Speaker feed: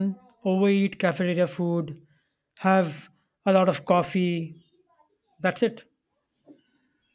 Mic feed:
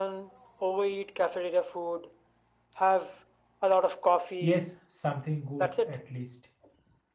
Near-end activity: present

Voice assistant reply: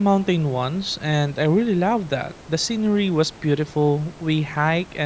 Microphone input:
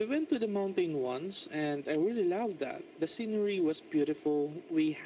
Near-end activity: none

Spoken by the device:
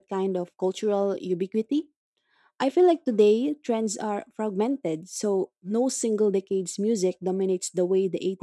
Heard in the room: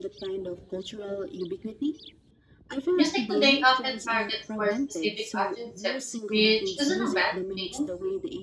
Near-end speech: present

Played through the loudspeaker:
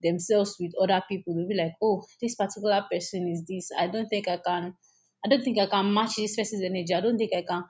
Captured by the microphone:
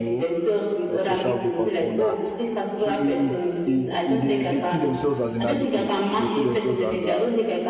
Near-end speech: present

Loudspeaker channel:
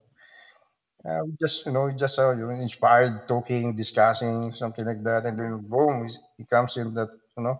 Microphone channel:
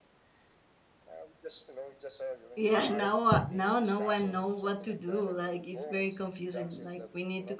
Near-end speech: present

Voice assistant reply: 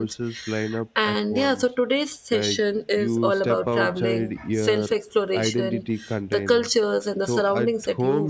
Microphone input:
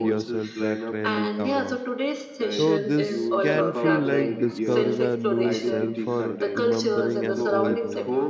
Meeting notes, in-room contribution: present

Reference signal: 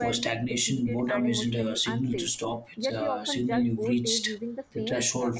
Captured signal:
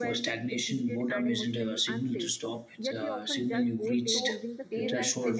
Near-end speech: present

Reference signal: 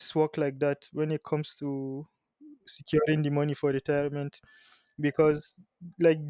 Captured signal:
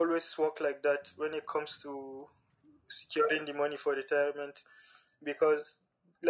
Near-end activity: none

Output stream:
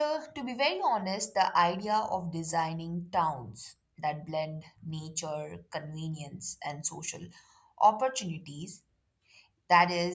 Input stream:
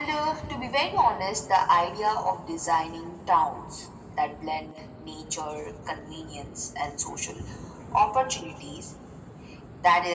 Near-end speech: none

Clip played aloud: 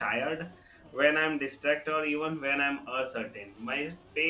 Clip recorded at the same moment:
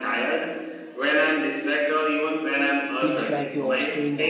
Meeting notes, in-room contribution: present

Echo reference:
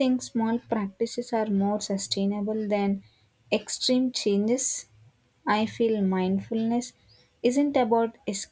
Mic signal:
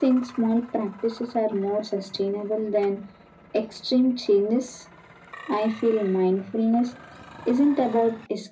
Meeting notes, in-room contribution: none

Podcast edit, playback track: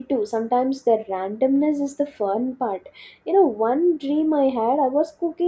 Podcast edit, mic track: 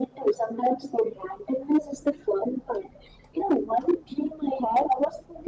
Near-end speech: none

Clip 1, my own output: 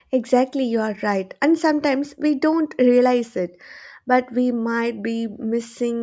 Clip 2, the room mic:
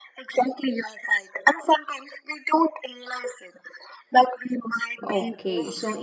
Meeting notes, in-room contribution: present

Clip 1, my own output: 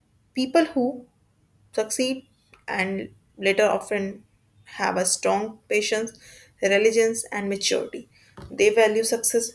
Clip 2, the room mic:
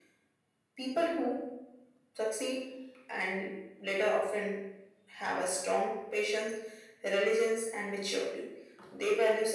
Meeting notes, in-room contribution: none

